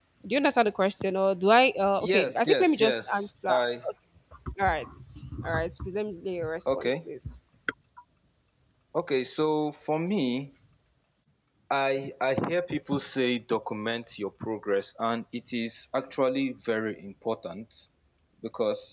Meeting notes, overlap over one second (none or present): present